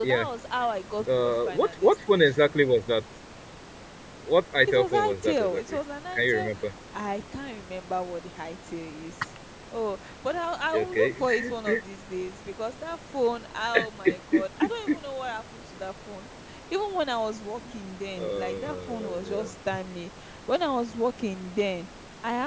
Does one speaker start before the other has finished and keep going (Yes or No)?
Yes